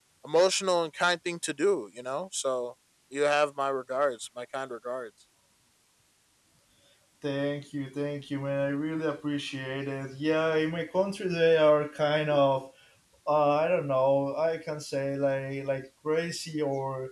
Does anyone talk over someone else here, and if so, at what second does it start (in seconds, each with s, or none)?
none